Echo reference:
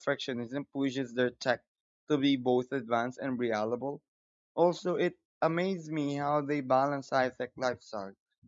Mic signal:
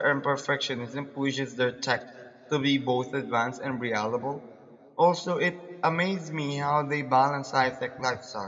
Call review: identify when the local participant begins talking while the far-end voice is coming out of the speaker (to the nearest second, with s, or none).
none